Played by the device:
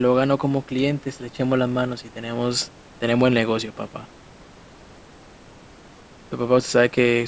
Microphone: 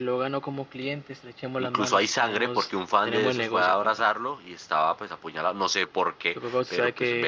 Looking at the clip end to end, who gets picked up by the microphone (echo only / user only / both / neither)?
both